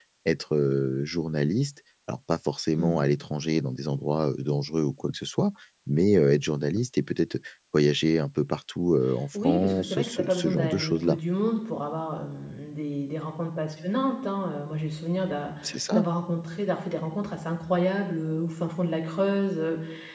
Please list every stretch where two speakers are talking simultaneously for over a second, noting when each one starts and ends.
9.3-11.2

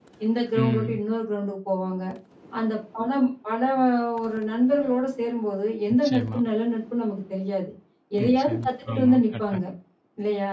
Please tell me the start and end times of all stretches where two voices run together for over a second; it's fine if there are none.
8.2-9.6

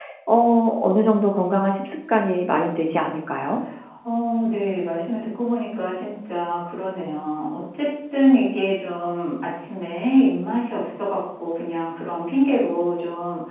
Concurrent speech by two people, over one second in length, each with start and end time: none

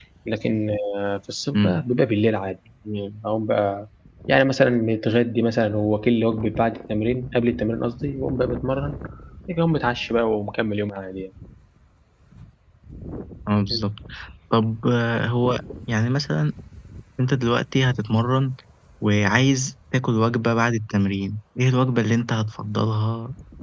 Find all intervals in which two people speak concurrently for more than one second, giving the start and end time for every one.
none

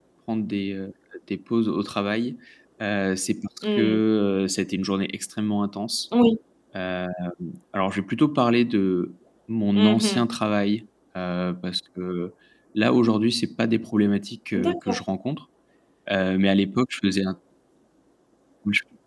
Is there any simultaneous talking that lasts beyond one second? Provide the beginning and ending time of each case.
none

